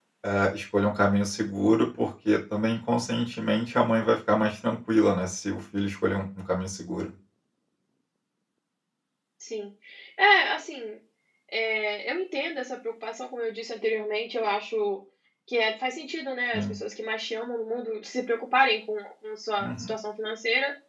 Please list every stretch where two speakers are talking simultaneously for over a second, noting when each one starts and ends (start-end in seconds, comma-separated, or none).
none